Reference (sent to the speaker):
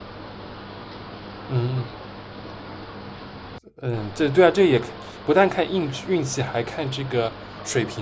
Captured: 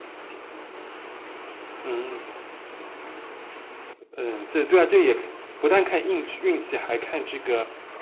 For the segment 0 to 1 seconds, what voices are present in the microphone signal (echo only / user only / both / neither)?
neither